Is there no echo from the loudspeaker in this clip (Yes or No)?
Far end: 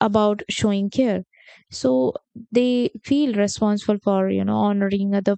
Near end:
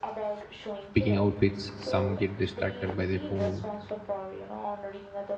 No